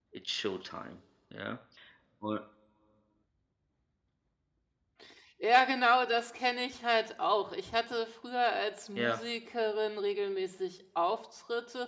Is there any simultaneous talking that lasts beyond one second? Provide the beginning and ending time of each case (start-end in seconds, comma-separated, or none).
none